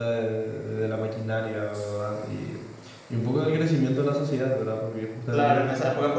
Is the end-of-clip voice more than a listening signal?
Yes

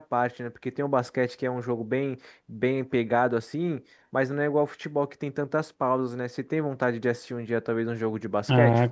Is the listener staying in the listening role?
No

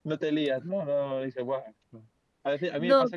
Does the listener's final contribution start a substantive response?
No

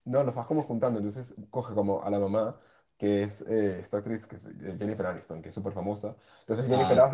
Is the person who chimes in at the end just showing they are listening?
Yes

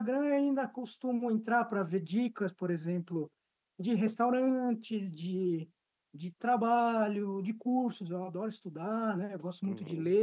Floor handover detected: No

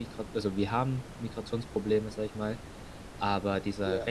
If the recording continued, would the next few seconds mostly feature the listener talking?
No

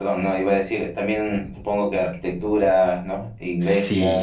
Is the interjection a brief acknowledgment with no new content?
No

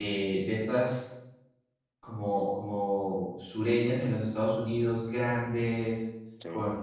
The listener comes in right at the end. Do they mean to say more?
No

